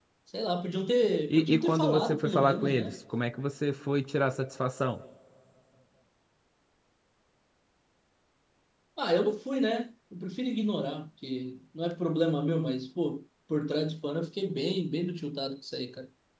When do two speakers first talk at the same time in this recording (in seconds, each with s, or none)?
1.3 s